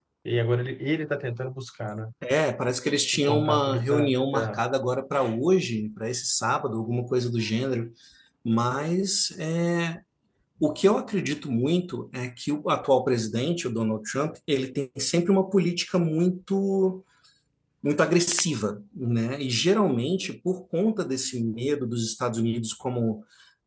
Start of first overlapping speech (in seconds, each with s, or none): 3.1 s